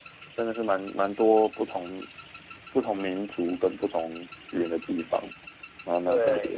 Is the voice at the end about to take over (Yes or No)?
Yes